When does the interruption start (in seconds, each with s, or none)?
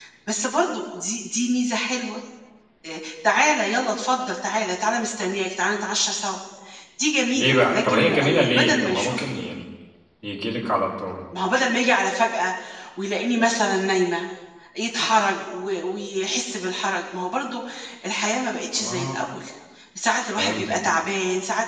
7.4 s